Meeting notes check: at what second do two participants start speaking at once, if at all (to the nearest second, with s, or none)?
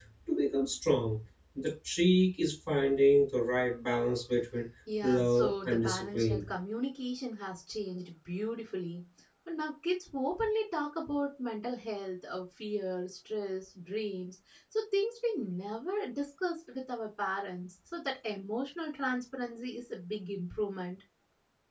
5 s